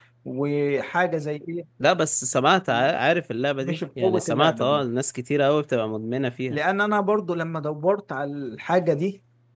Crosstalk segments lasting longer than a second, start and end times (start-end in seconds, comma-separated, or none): 3.6-4.8